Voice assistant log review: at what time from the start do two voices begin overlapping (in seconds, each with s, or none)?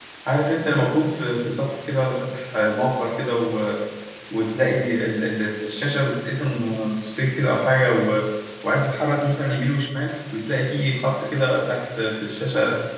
none